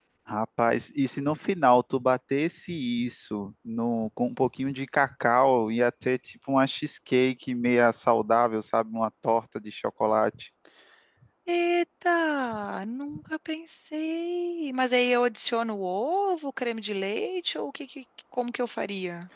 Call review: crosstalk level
none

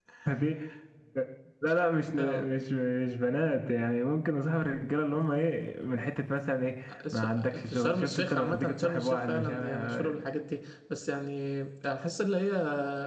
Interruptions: present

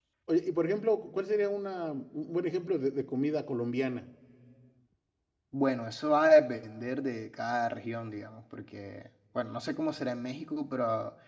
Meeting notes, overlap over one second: none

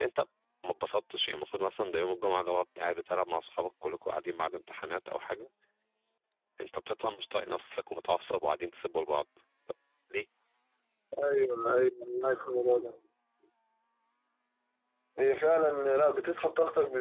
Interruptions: none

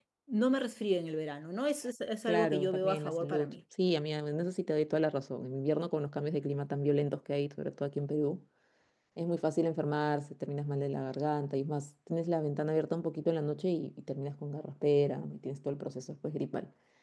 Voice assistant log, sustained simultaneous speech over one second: present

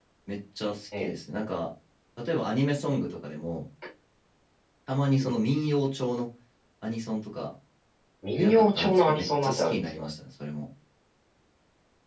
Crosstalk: present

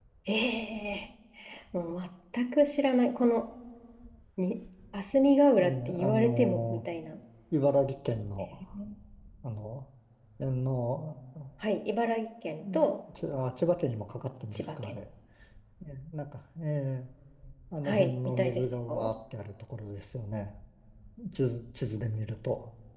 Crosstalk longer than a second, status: present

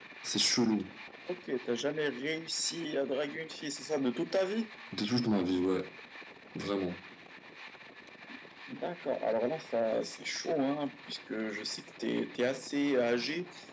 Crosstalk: none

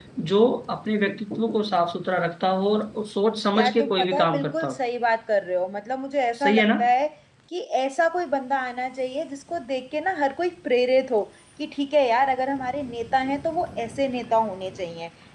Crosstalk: present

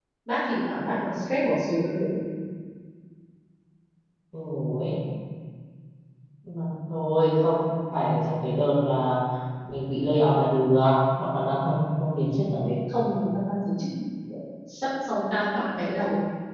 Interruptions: none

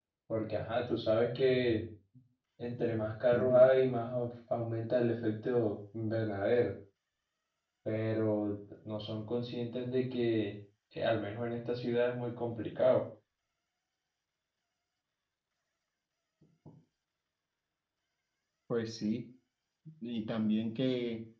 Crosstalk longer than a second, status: none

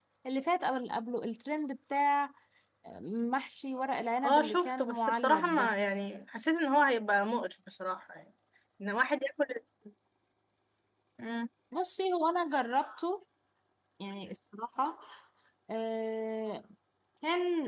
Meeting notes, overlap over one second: present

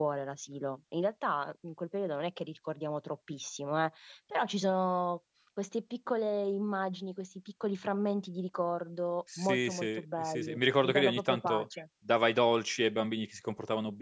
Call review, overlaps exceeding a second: present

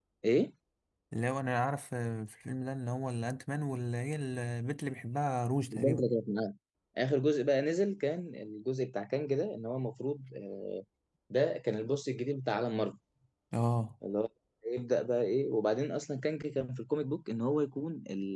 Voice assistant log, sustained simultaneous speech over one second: none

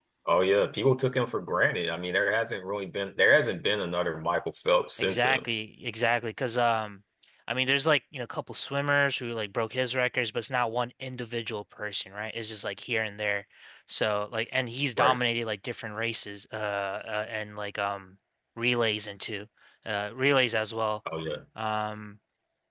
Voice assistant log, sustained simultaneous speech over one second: none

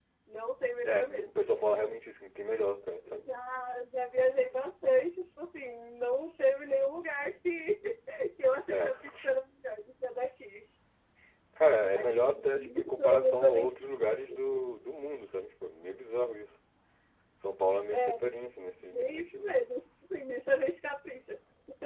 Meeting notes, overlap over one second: present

